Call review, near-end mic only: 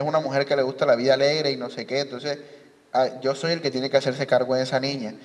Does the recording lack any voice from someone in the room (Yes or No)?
Yes